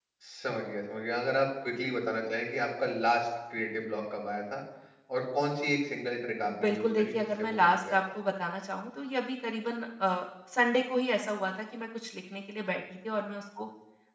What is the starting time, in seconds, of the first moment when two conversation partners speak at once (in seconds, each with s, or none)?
6.5 s